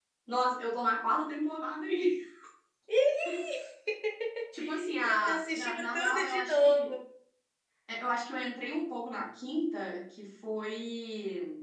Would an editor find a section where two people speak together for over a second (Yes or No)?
Yes